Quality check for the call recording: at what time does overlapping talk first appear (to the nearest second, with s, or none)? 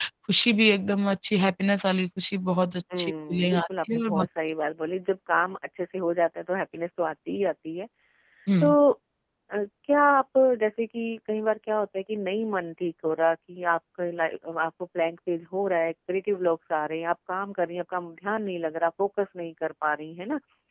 3 s